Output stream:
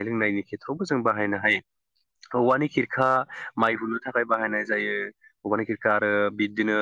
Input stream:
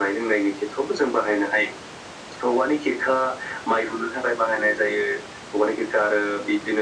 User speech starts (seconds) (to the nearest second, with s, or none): none